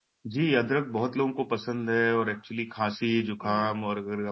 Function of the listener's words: listening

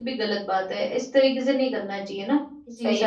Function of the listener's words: taking over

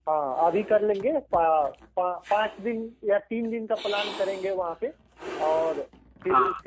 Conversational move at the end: listening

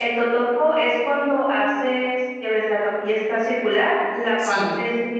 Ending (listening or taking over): listening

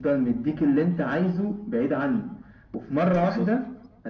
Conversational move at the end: listening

